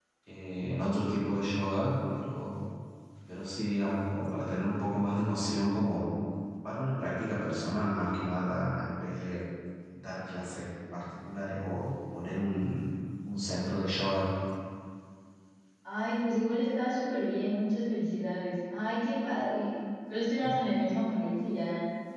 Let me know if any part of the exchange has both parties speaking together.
No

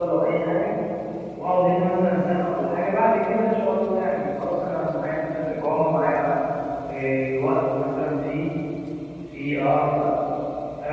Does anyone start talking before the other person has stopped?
No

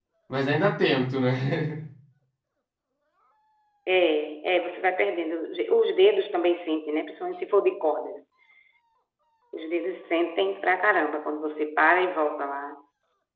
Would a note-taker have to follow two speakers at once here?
No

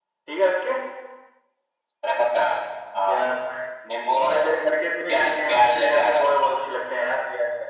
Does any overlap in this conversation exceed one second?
Yes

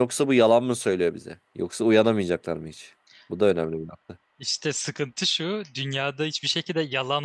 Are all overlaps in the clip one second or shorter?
Yes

